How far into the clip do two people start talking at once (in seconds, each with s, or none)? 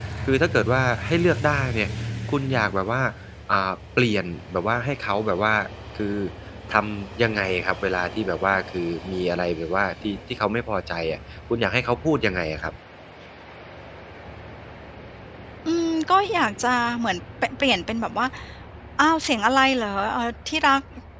none